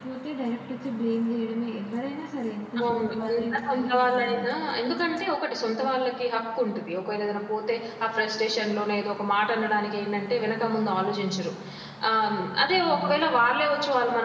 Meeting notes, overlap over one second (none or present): present